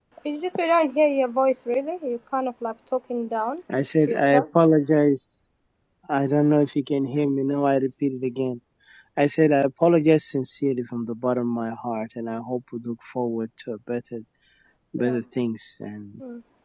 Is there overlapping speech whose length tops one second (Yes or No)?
No